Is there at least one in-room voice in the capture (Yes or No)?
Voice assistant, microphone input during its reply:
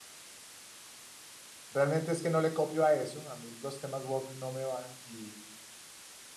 Yes